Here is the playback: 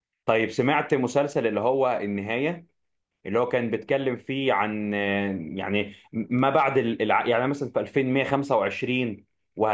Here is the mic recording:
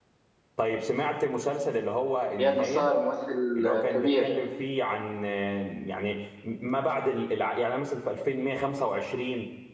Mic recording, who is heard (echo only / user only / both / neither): both